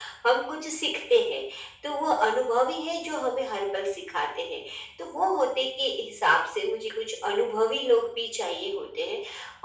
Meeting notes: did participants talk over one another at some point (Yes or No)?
No